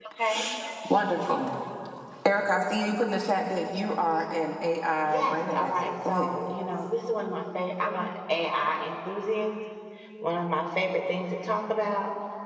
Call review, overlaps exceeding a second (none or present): present